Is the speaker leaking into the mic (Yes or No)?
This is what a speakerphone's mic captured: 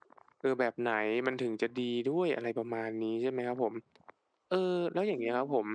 No